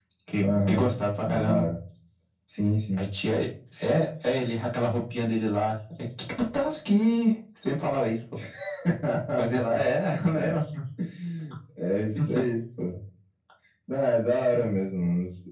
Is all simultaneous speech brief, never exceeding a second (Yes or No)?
No